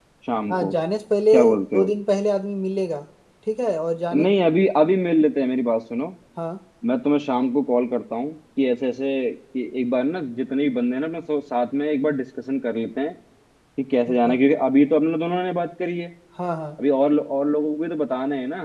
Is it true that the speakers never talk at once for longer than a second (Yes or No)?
Yes